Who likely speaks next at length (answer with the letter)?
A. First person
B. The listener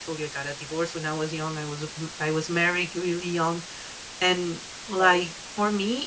A